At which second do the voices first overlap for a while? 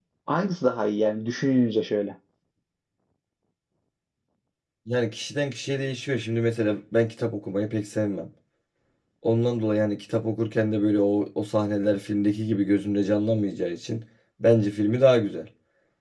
none

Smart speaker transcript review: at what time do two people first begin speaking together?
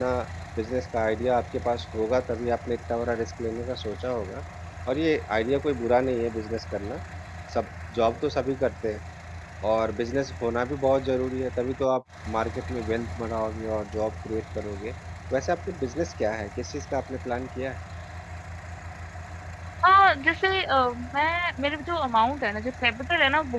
none

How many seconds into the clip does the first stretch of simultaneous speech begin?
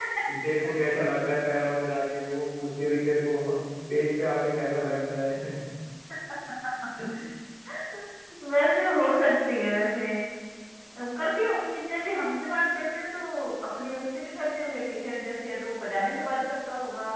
none

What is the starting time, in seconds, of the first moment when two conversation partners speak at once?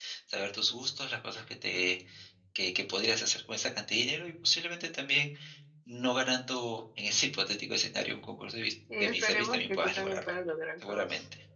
9.0 s

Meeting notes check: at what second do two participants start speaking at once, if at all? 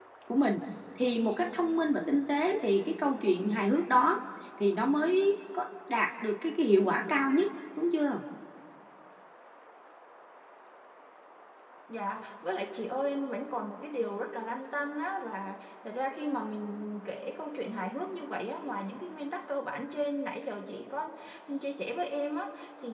none

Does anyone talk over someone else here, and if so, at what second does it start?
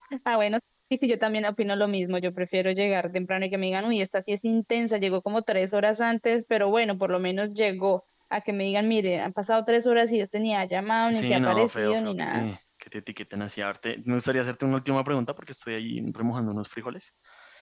11.1 s

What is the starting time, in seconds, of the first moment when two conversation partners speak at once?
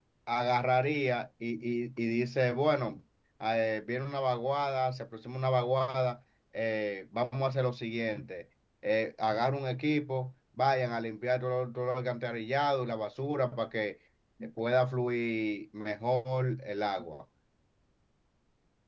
none

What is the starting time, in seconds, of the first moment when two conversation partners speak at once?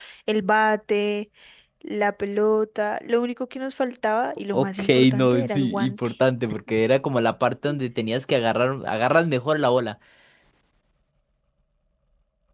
4.5 s

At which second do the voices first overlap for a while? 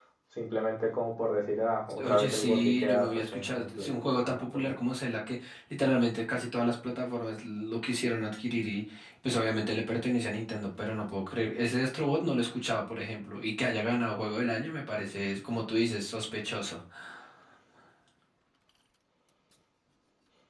2.0 s

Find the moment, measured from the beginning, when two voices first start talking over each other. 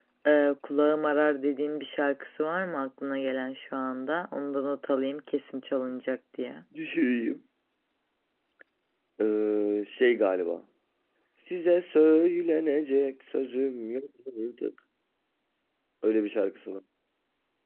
none

